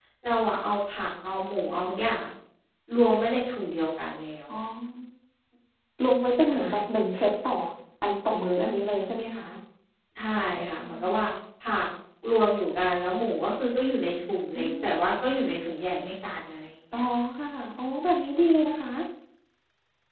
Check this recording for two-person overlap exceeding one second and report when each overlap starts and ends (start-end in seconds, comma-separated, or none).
none